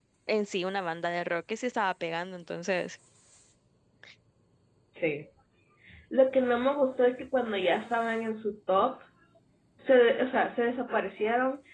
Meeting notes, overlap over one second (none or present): none